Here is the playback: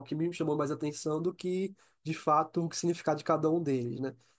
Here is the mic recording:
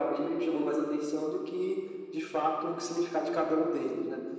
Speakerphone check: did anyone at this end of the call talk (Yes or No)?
No